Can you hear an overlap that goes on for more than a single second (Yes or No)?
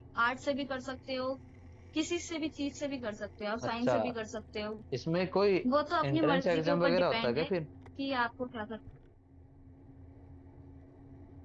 Yes